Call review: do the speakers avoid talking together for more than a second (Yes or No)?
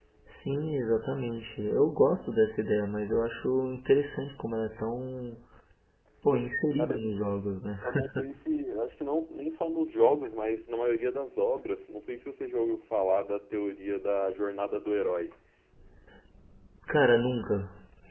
Yes